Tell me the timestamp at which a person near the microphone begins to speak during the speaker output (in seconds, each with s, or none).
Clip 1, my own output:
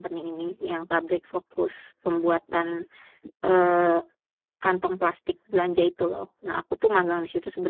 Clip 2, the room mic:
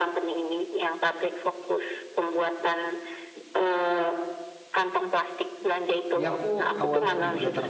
6.2 s